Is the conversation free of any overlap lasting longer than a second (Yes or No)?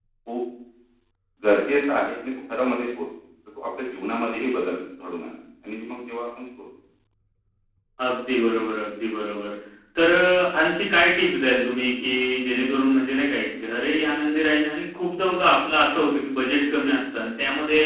Yes